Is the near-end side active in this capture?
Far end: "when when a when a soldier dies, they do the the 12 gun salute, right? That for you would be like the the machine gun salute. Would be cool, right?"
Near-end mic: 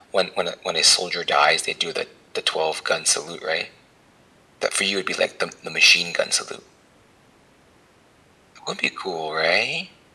No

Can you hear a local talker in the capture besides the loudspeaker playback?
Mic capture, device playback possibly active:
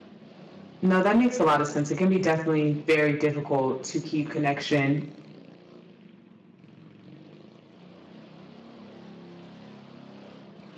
Yes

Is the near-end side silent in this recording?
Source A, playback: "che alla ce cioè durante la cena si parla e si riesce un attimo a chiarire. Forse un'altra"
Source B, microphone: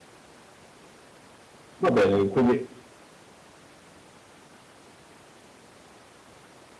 No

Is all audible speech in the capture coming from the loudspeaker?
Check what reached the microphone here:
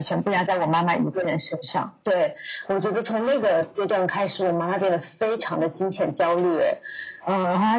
Yes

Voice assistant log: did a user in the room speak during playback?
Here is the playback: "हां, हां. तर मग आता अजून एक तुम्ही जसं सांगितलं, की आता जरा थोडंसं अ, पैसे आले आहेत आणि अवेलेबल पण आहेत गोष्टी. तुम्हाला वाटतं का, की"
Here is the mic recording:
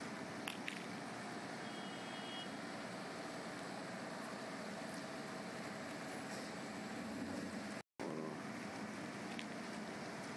No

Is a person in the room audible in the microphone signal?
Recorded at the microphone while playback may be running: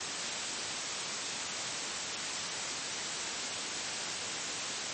No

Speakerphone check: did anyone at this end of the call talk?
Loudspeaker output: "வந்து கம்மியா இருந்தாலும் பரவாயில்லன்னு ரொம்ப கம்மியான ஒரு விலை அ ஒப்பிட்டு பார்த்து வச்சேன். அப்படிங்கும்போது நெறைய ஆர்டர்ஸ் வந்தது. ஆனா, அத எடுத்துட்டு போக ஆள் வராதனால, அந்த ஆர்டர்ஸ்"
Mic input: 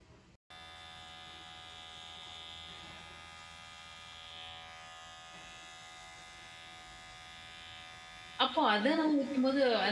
Yes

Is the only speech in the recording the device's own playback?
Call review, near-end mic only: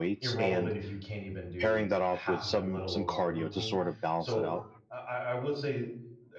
No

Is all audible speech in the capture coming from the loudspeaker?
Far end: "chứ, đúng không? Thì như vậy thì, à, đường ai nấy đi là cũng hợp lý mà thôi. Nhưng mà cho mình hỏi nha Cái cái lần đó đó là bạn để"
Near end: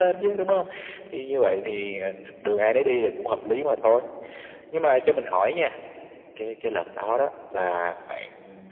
Yes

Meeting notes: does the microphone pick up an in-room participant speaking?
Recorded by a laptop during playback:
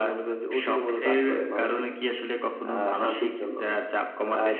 No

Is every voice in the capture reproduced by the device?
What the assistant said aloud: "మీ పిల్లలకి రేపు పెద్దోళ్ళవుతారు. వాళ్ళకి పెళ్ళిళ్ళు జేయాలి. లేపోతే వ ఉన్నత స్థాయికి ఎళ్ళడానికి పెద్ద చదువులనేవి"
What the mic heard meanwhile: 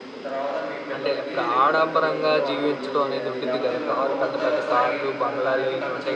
No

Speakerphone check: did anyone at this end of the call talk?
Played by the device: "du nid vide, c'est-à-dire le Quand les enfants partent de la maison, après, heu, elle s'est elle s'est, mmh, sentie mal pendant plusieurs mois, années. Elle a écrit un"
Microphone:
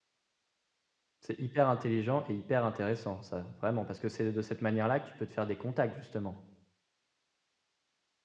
Yes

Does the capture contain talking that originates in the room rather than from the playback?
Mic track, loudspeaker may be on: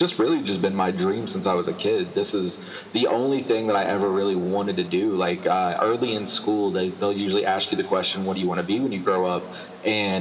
No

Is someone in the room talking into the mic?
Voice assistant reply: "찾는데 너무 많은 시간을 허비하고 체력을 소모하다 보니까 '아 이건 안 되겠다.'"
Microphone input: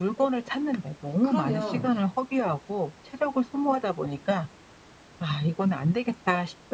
Yes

